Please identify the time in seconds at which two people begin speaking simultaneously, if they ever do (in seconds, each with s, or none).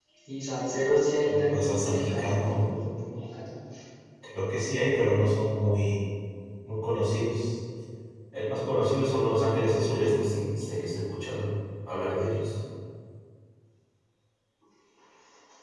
1.3 s